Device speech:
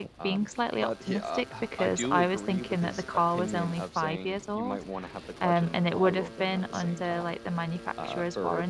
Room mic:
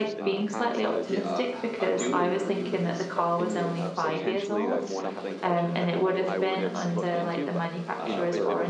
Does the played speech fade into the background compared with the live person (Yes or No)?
No